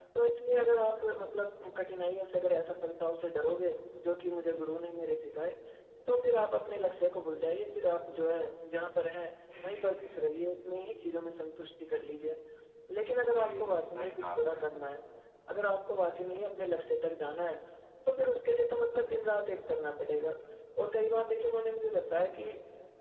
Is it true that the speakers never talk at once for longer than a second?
No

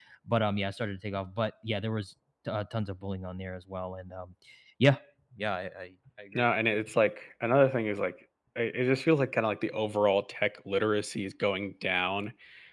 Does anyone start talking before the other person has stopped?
No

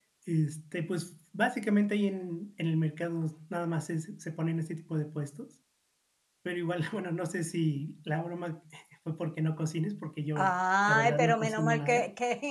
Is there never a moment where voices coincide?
No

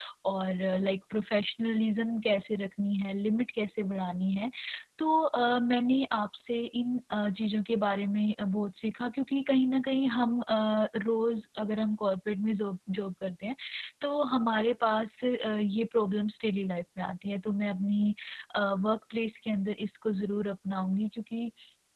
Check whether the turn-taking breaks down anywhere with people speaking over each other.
No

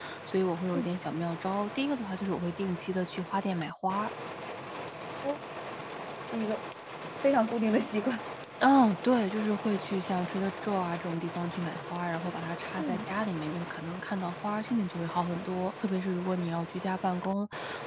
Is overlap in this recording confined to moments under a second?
Yes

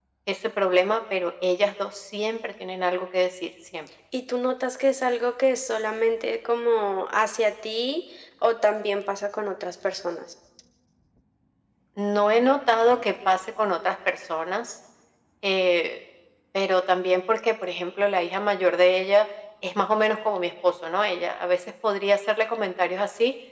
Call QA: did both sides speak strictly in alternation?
Yes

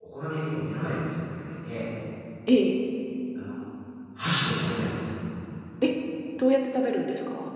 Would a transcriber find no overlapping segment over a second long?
Yes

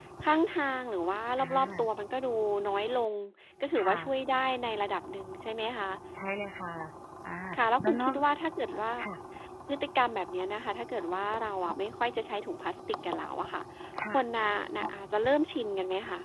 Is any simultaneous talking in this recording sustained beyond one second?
No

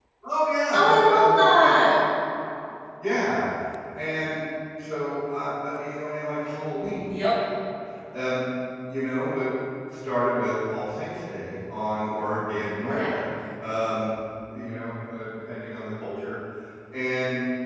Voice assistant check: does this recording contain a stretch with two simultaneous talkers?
Yes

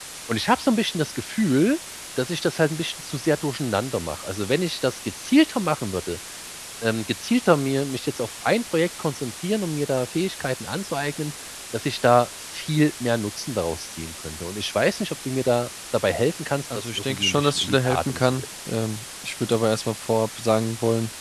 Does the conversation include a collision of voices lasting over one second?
Yes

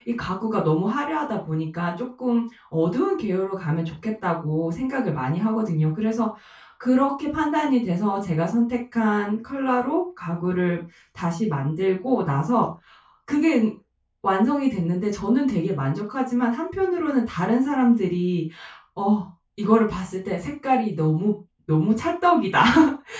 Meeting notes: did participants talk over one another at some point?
No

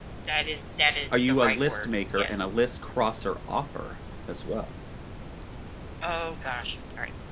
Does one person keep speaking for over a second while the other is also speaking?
Yes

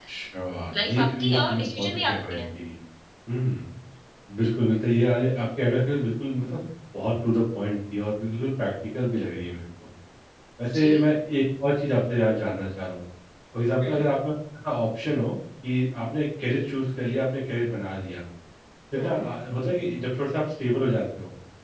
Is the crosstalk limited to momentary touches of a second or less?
No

